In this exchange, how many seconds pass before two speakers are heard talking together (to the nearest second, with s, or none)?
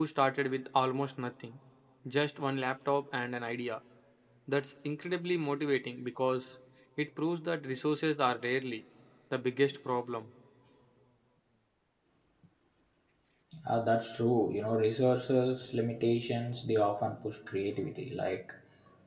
none